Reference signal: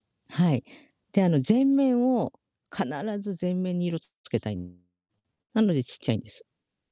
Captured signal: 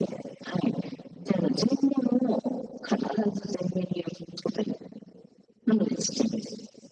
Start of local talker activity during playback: none

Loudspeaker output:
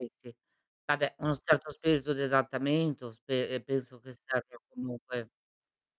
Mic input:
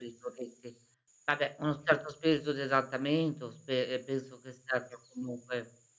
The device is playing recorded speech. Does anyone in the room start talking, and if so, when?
none

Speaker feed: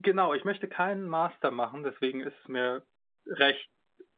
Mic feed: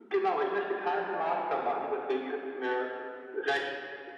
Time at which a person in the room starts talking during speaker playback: none

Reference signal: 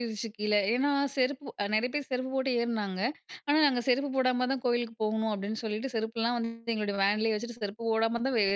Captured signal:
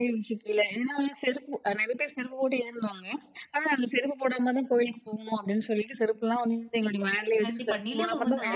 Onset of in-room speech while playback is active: 7.5 s

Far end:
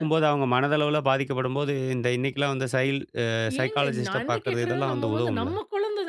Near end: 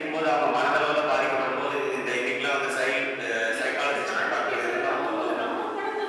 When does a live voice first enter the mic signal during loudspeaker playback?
none

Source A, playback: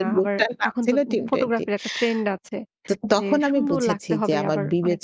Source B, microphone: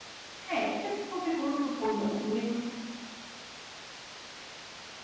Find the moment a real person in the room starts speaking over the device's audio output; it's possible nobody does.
0.5 s

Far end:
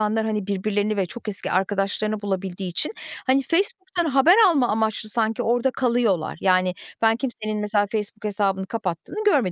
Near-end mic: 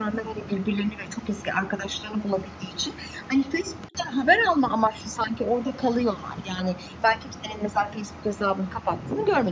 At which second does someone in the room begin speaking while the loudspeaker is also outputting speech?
none

